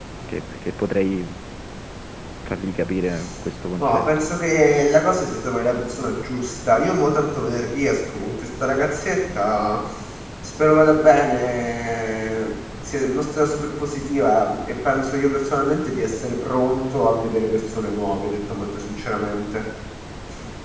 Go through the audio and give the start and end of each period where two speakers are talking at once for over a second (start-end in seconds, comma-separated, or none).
none